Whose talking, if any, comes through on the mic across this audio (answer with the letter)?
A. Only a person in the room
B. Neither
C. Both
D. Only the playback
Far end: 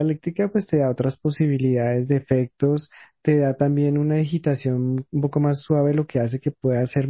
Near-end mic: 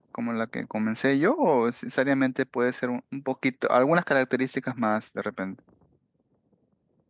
A